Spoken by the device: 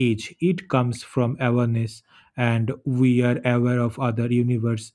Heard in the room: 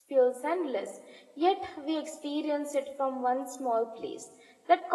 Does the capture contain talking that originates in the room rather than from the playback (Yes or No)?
Yes